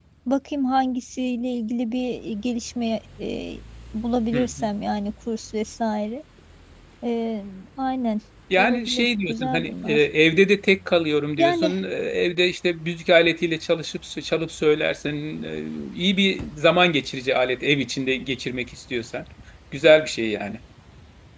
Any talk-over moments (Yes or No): Yes